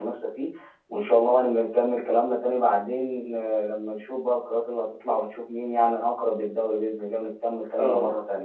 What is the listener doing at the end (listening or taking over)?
taking over